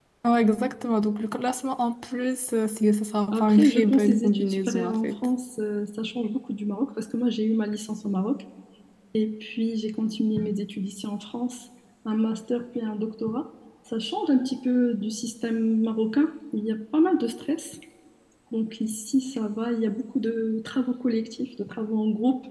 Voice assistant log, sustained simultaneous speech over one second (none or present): present